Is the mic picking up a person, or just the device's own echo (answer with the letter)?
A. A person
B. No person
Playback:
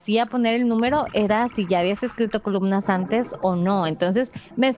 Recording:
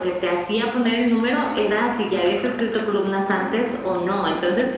B